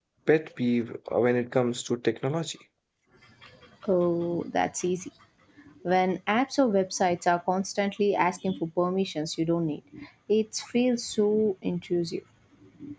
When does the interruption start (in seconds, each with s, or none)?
none